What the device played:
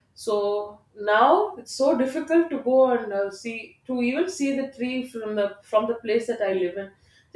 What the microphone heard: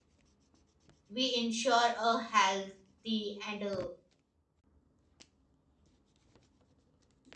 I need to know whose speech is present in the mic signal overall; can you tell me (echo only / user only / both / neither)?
user only